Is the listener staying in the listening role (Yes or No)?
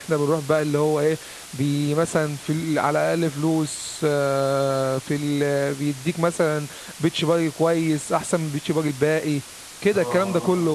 Yes